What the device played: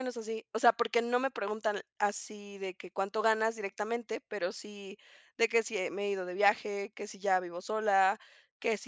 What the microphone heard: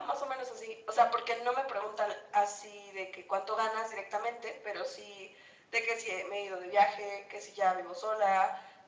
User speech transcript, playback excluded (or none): none